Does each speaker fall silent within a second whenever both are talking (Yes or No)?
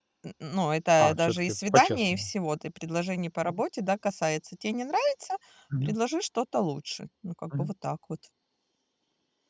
No